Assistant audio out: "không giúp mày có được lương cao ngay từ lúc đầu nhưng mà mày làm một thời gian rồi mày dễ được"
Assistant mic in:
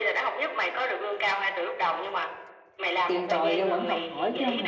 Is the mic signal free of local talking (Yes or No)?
No